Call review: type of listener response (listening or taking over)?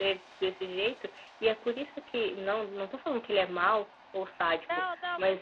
taking over